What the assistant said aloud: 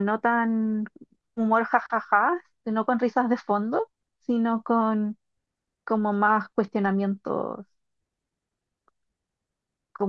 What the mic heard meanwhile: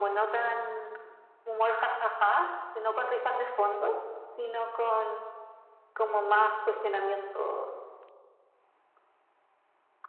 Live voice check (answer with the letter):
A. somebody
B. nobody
B